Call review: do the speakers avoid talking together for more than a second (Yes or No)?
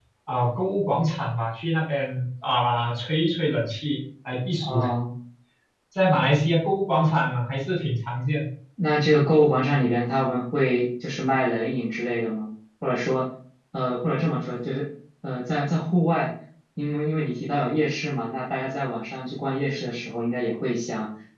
Yes